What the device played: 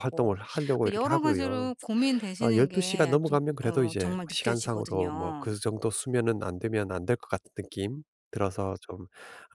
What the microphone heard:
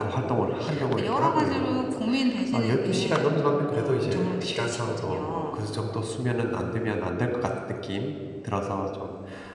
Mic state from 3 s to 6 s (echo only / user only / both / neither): echo only